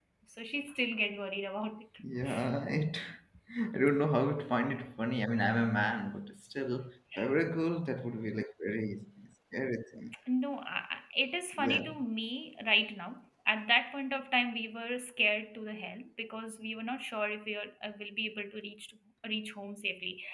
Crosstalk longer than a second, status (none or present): none